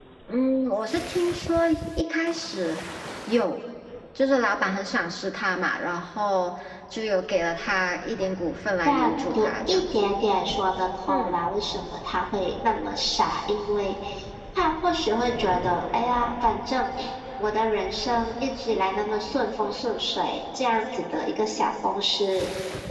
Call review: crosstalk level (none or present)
present